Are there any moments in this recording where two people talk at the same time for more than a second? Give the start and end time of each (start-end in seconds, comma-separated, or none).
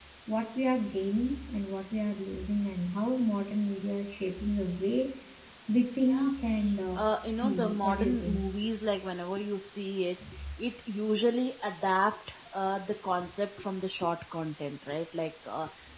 7.0-8.4